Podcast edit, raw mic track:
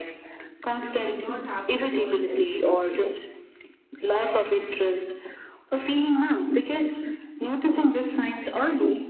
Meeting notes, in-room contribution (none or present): present